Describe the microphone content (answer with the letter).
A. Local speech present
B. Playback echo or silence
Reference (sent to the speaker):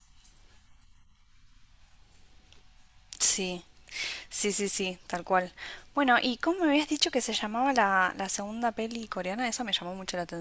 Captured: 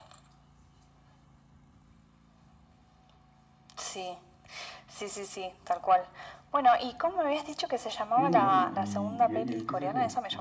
A